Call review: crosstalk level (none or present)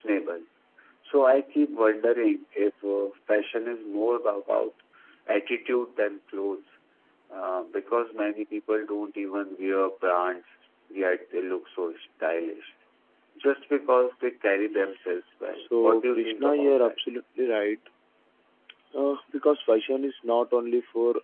present